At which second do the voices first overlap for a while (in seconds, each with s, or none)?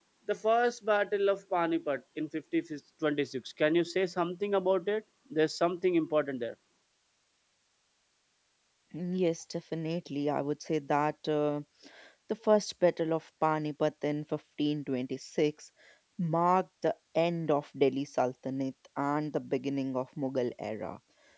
none